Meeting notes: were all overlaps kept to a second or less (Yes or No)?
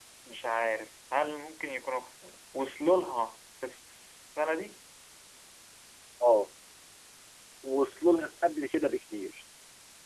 Yes